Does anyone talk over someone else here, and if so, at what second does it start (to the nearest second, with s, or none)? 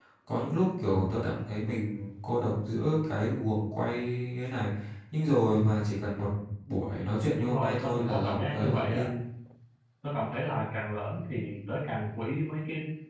7 s